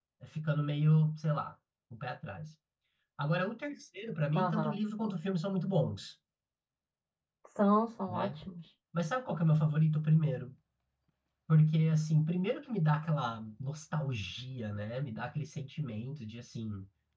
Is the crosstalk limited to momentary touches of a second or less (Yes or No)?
Yes